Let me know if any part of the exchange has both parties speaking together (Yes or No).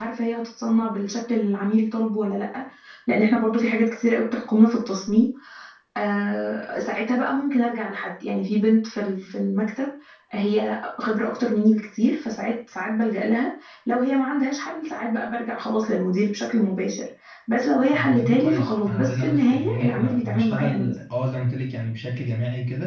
Yes